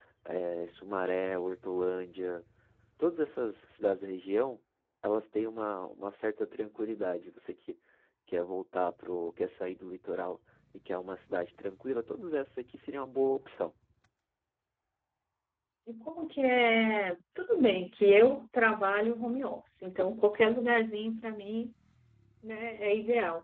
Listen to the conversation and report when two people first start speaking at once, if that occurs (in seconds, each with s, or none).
none